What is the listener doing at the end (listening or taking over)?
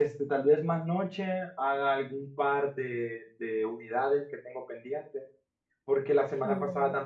listening